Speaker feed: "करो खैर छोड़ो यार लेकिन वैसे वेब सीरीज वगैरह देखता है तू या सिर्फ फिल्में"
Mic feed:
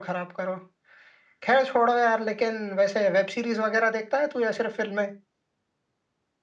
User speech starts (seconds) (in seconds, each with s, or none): none